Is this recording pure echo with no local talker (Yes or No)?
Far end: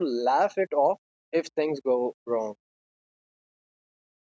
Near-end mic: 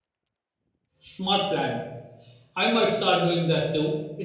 No